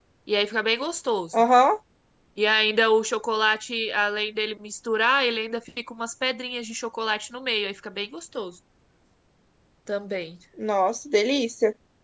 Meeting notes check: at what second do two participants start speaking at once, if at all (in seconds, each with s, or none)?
none